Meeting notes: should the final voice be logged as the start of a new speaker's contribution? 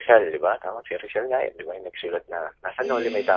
Yes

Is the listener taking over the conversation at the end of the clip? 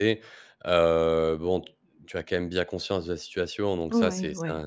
No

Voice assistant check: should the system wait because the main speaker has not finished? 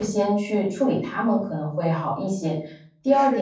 Yes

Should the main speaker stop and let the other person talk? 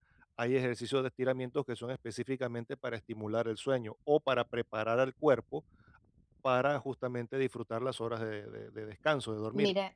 Yes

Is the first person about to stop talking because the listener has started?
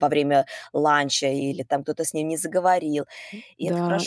Yes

